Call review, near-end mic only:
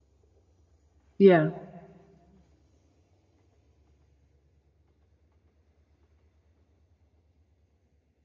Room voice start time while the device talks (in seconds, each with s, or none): 1.2 s